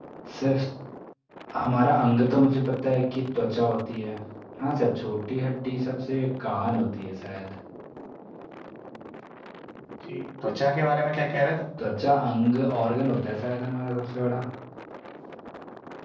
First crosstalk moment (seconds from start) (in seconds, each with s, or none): none